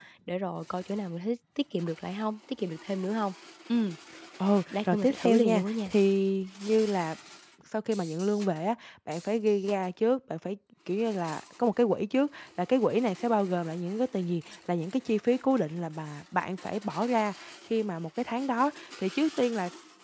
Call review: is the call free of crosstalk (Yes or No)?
No